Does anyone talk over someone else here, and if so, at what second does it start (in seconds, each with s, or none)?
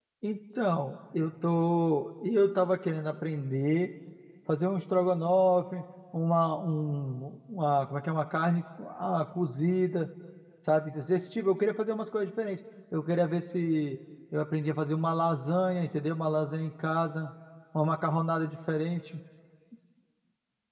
none